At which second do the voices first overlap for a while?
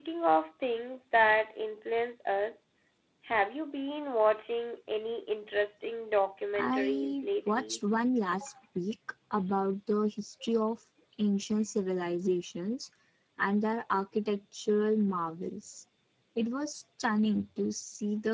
6.5 s

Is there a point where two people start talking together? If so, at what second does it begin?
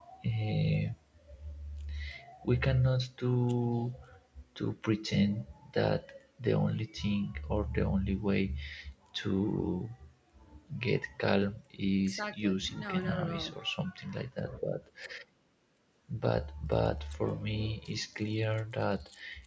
12.0 s

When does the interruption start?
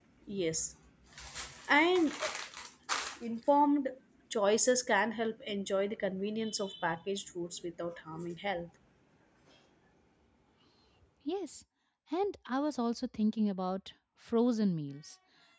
none

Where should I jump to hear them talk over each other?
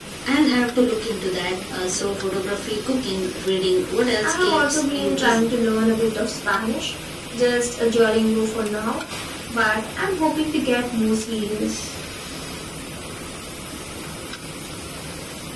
4.2 s

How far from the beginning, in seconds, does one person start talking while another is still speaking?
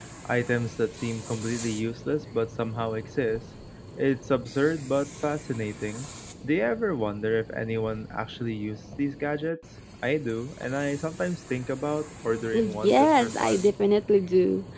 12.5 s

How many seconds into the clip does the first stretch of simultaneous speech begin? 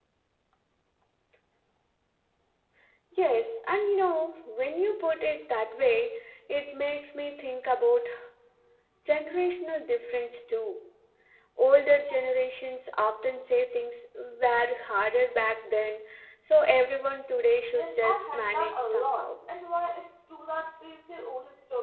17.7 s

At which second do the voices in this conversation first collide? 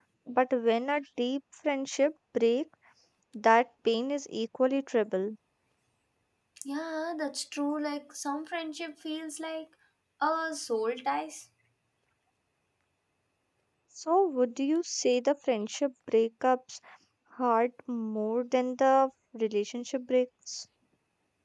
none

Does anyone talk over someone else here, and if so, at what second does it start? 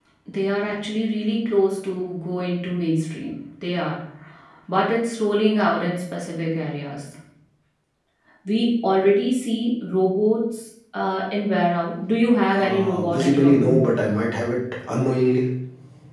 12.5 s

